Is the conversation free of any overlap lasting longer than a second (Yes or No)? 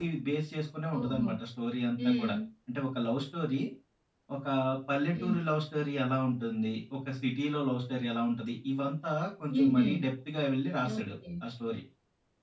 Yes